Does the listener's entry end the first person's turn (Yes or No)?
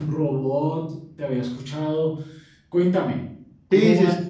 Yes